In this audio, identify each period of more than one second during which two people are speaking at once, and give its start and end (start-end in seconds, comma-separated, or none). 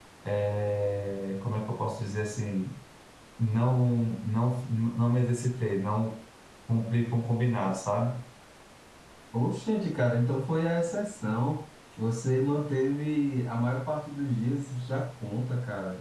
none